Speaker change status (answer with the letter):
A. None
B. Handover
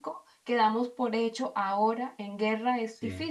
B